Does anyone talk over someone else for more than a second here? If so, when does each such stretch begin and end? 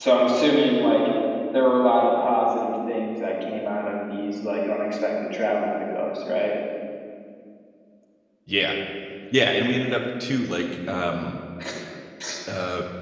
none

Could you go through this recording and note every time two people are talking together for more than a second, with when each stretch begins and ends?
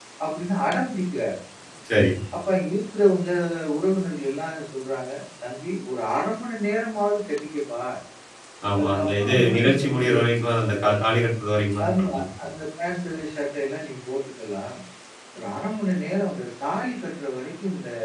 8.8-10.1

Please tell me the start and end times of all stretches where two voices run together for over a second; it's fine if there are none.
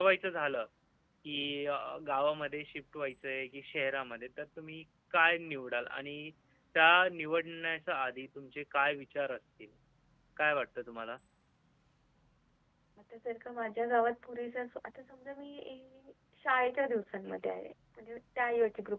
none

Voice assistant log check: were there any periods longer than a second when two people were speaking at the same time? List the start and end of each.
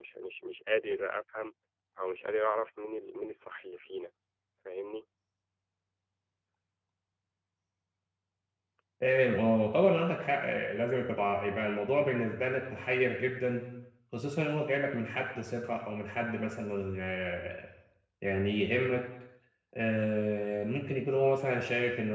none

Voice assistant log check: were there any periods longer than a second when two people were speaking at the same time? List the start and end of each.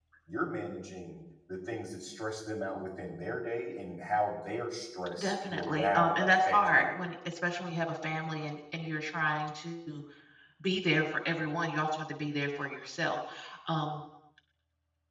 5.2-6.9

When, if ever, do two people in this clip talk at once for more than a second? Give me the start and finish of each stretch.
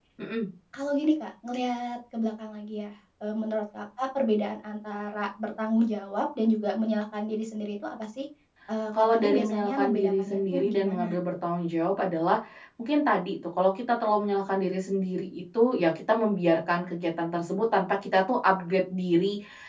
9.1-11.1

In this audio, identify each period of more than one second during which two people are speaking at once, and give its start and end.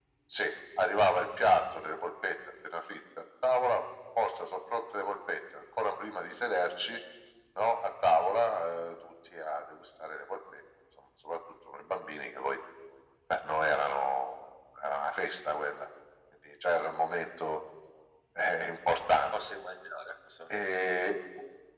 none

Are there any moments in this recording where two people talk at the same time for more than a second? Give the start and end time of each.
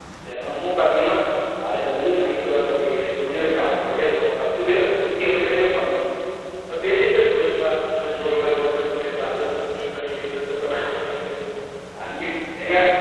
none

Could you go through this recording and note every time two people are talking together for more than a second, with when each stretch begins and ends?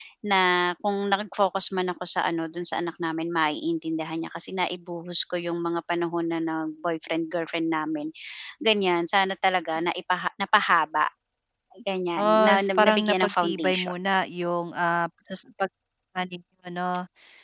12.2-13.9

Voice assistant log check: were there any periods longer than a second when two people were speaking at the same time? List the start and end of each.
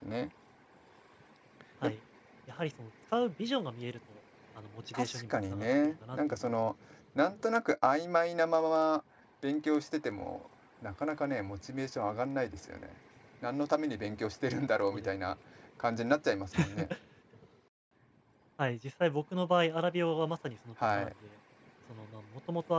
4.9-6.5

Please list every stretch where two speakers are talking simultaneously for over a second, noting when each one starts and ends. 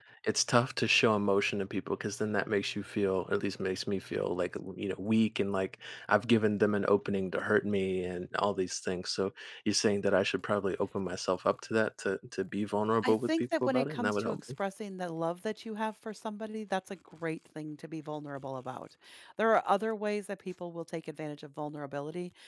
13.0-14.4

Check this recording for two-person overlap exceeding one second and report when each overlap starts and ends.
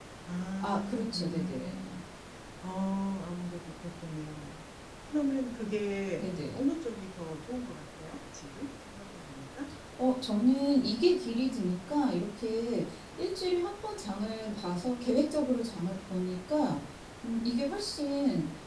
0.6-1.9

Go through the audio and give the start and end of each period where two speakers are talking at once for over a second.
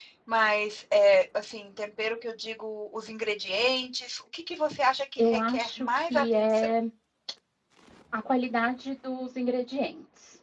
5.2-6.7

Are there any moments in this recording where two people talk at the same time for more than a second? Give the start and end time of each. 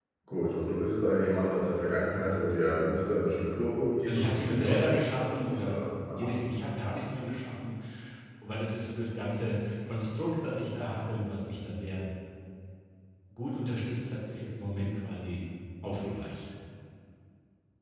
4.1-6.3

